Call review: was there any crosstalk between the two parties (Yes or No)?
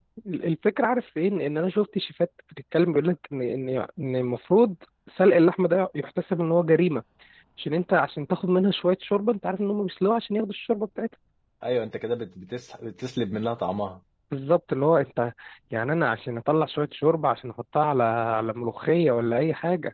No